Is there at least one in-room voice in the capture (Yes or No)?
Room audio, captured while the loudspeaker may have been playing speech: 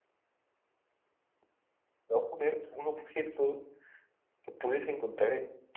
Yes